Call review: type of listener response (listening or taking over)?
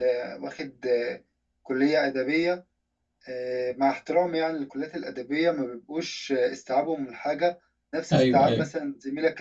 listening